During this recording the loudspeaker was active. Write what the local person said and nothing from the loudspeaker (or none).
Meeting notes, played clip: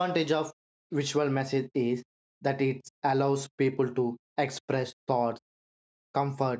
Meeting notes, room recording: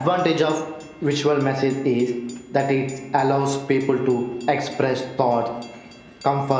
none